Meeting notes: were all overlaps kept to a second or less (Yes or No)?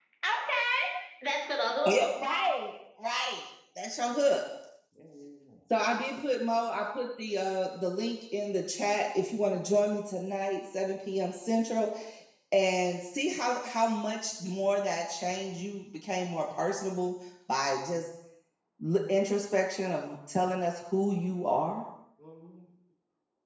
Yes